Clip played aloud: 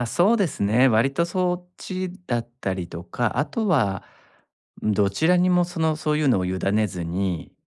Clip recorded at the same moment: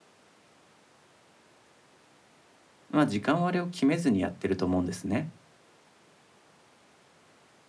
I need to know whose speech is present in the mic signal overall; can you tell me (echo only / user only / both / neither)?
user only